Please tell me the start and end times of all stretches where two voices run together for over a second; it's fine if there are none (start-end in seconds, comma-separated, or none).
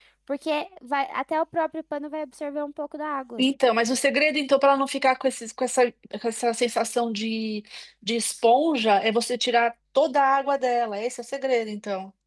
none